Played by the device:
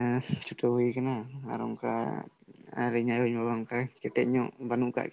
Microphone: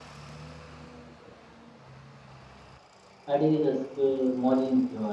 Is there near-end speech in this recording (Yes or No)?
Yes